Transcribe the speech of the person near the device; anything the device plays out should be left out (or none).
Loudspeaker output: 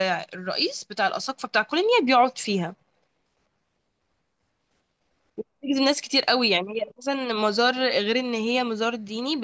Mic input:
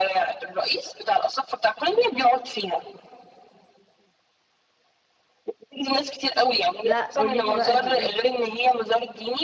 لا قوليلي بقى دي ايه